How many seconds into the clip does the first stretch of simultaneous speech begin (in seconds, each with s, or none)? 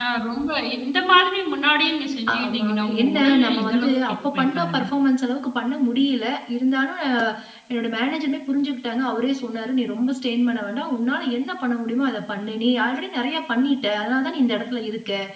2.3 s